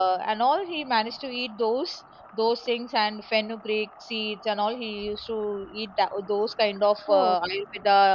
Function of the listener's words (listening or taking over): listening